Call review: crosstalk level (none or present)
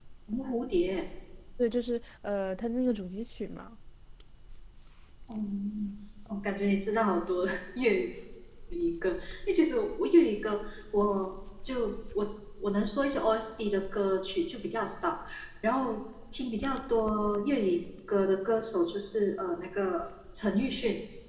none